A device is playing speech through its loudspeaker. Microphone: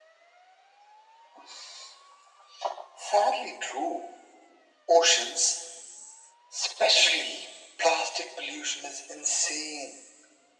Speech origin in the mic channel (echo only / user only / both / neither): echo only